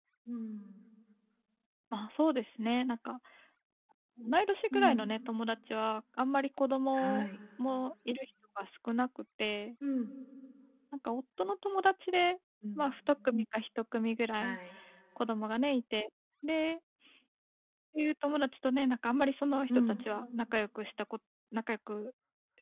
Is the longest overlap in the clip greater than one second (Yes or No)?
No